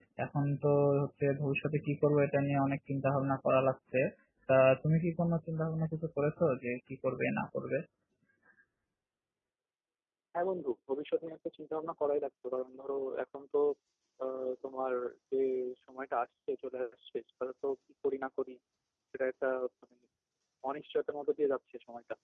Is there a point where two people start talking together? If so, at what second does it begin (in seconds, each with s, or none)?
none